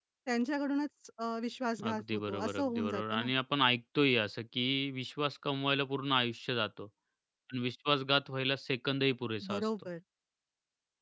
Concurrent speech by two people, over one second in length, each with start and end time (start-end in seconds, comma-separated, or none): 1.9-3.3